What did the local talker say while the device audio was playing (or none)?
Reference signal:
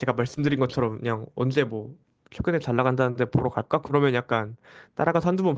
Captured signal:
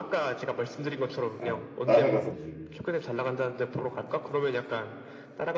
아, 따라가서 보는.